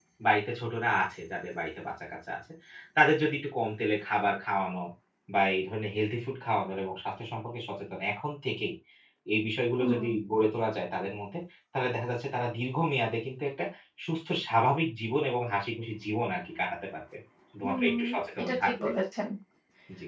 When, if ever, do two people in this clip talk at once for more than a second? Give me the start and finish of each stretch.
17.6-18.9

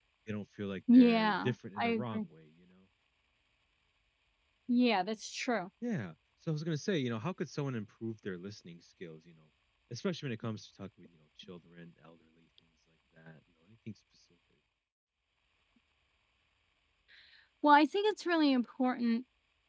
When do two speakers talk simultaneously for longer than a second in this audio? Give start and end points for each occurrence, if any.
0.9-2.2

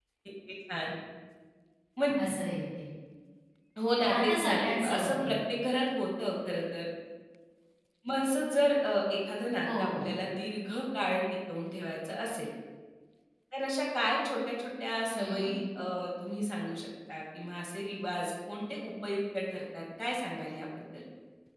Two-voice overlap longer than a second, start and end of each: 4.1-5.3

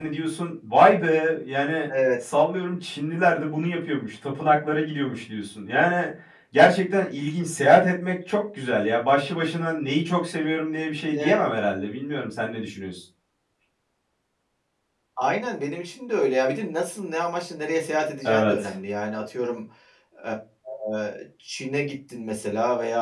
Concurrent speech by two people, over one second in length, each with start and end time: none

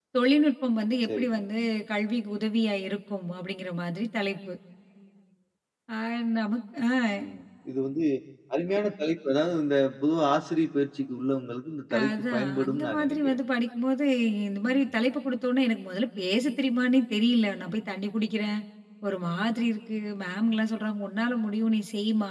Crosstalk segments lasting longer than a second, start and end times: 12.0-13.4

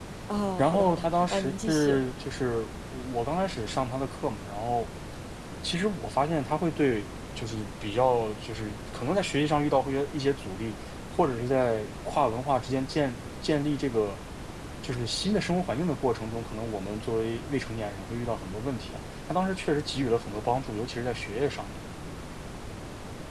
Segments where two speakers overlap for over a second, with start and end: 0.6-2.0

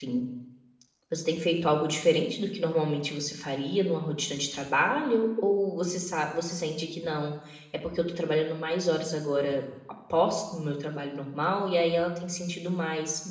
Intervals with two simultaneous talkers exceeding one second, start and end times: none

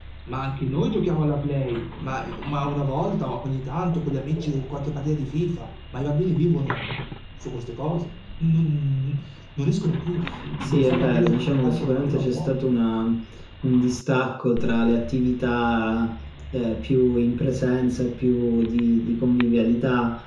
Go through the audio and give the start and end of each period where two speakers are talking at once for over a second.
10.6-12.5

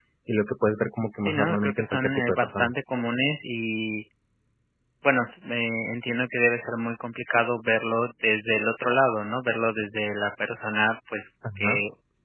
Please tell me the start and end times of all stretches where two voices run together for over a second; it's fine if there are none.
1.2-2.7

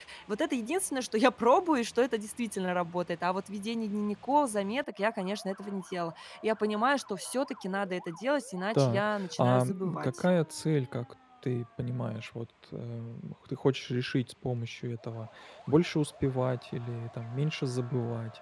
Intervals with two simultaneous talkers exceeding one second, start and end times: 8.7-10.2

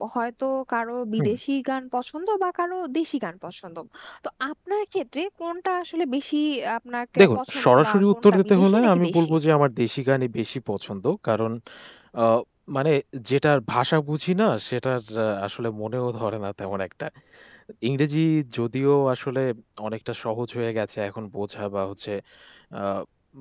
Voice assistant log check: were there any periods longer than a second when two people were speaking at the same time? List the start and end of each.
7.2-9.3

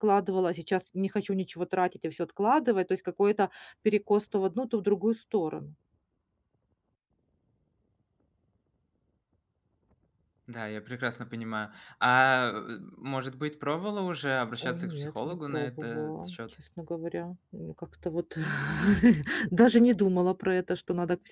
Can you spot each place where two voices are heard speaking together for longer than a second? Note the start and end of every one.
14.6-16.4

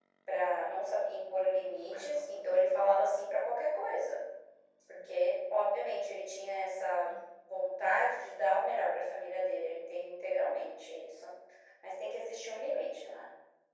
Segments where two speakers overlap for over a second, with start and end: 1.6-2.9

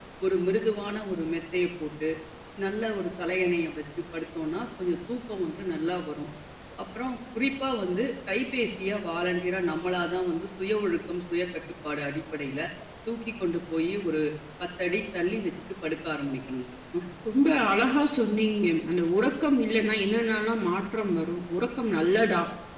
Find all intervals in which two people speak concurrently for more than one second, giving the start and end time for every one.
none

